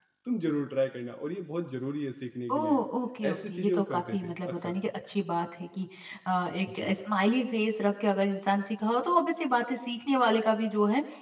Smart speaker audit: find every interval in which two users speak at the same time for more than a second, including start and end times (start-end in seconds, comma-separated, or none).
3.3-4.8